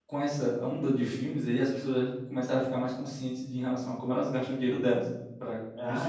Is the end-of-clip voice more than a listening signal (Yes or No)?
No